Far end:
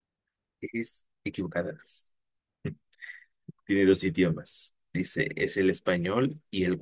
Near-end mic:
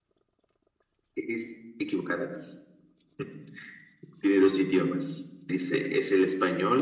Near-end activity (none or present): none